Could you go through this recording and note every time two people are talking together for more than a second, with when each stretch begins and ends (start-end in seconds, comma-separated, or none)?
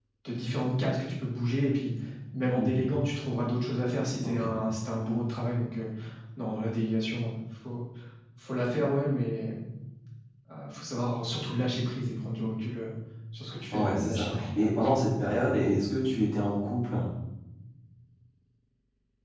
13.7-15.1